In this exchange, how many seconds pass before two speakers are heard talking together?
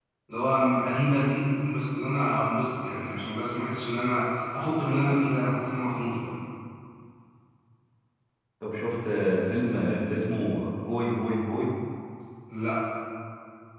none

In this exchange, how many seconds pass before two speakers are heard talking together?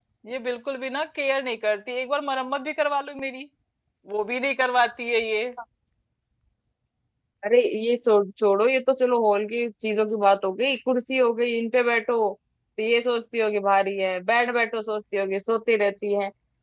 none

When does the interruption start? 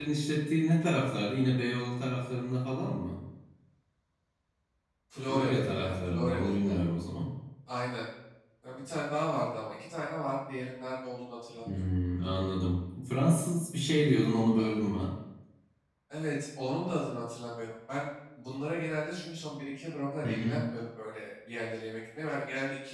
5.3 s

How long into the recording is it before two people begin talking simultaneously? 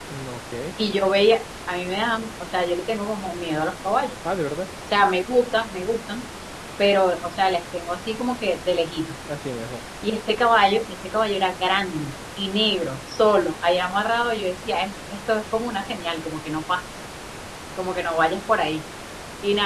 none

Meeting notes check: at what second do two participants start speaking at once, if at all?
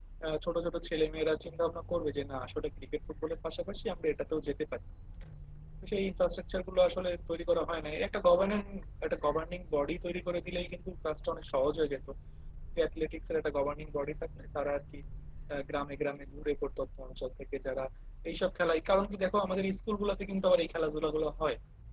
none

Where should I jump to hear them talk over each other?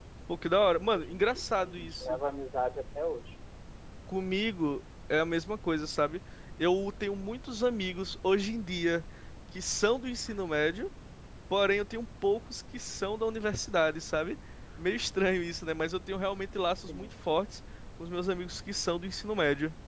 0.8 s

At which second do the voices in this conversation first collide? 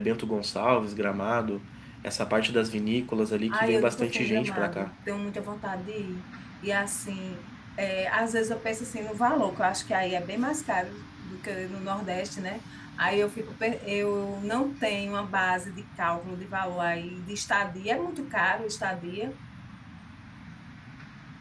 3.5 s

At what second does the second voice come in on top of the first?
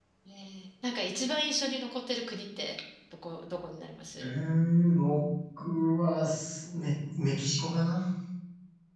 none

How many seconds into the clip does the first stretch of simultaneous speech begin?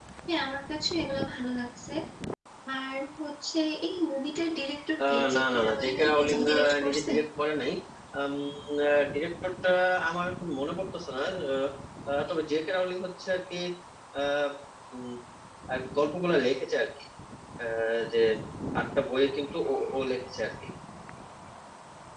5.0 s

